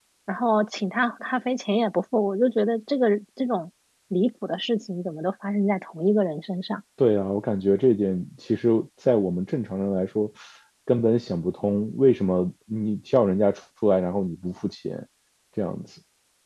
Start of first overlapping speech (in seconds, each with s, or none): none